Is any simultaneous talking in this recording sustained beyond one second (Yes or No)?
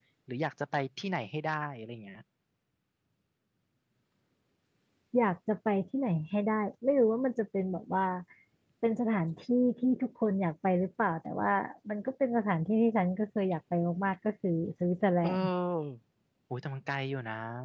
No